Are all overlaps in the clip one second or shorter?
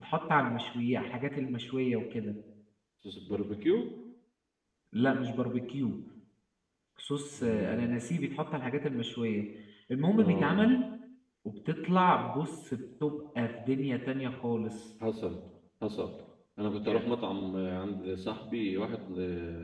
Yes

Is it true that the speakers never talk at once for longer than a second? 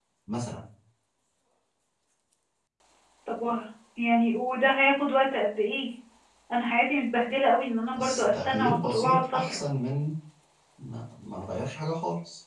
No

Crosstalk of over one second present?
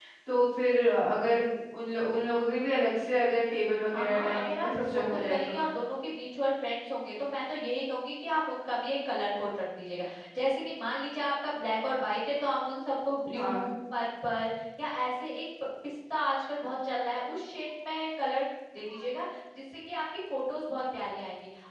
Yes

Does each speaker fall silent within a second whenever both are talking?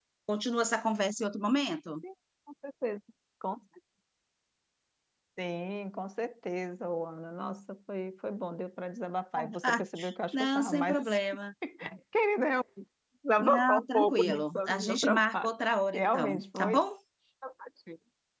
No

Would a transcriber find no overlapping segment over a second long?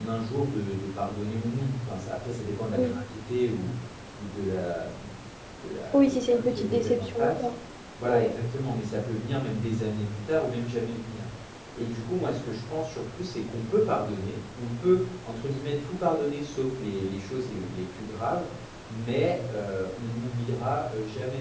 No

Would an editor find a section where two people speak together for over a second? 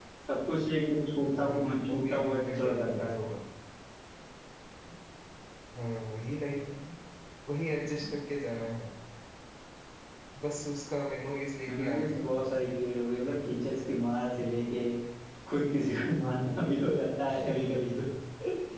Yes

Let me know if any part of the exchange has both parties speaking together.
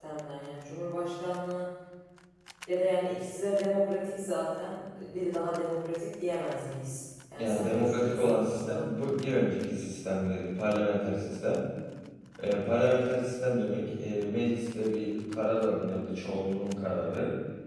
Yes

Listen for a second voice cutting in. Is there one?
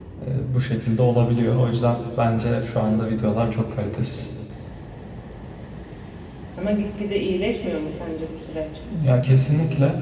No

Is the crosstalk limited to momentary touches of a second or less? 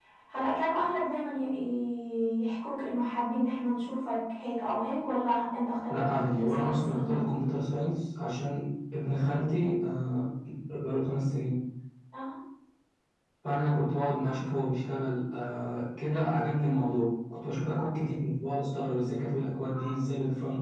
No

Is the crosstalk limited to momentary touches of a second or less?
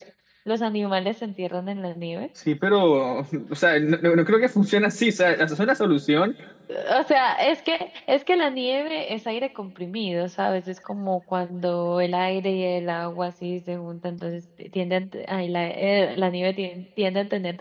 Yes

